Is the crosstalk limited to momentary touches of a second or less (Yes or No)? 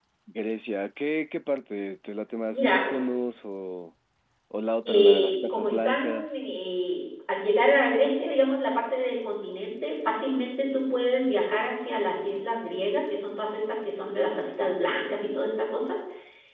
No